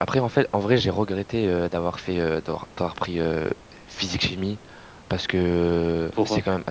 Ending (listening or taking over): listening